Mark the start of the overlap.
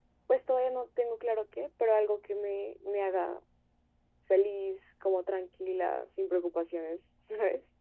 none

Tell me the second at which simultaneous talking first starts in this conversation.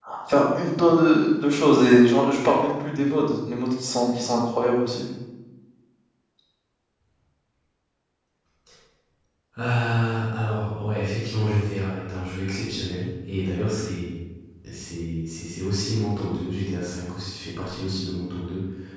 none

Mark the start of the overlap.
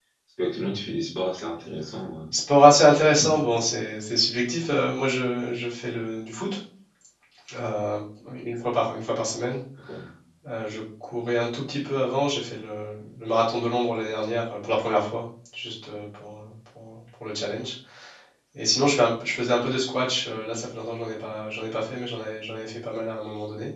none

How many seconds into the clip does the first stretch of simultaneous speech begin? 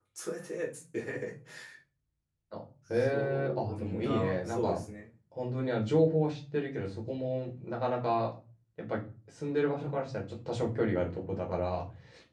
2.9 s

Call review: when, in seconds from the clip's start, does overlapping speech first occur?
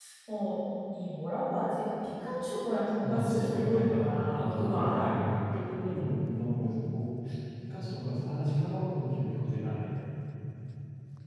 3.0 s

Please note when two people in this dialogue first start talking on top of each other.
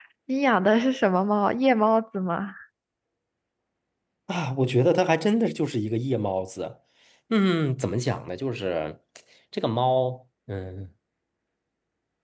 none

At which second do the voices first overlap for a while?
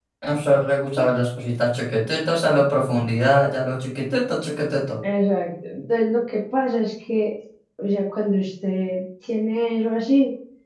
none

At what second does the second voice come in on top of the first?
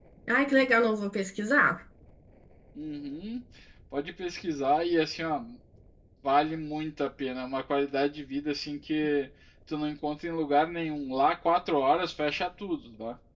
none

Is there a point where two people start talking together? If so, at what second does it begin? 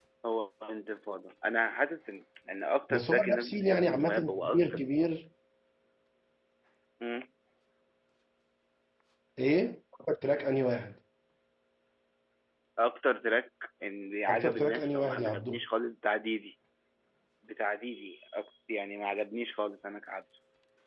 2.9 s

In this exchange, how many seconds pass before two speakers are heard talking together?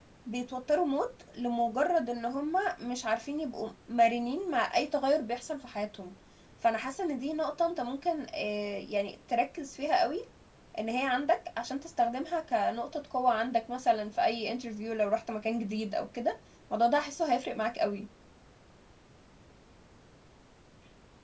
none

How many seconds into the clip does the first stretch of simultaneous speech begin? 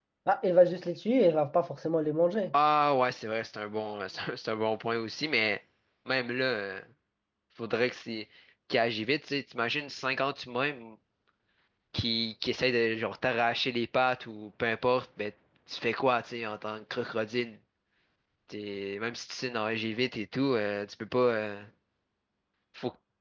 none

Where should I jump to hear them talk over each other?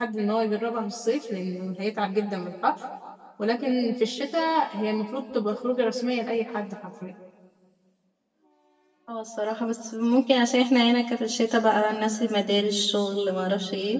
none

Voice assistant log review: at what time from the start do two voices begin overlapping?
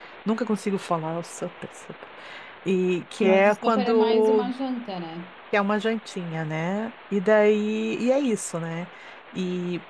3.2 s

